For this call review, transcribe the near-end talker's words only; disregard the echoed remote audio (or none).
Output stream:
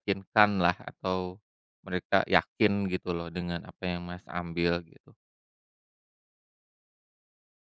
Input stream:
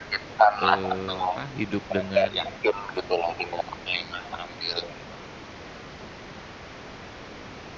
eee, apa, hidup dengan,